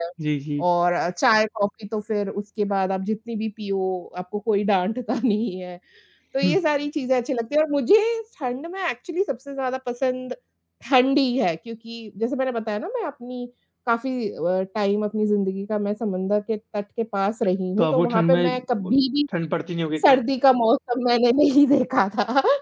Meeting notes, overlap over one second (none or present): present